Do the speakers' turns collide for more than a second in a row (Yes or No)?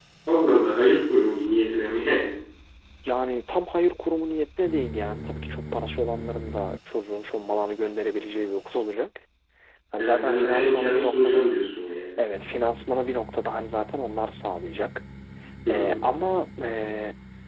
Yes